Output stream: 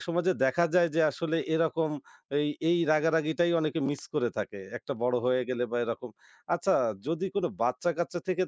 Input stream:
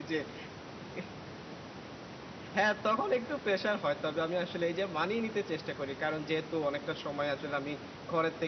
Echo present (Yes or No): No